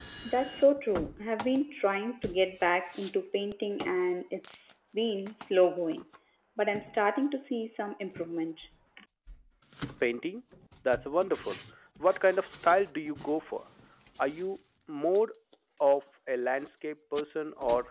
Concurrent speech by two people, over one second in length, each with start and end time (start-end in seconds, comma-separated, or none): none